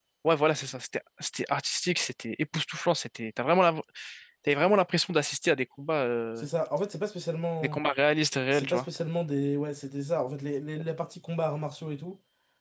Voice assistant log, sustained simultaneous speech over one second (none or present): none